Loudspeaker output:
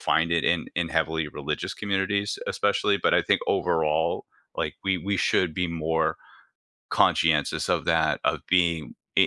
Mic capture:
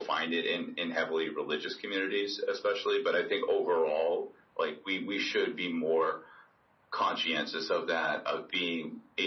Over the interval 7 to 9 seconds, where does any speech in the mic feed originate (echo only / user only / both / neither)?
echo only